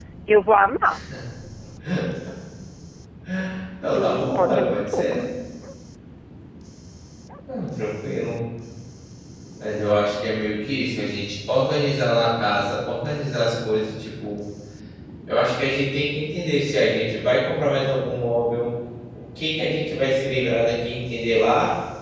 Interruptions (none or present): present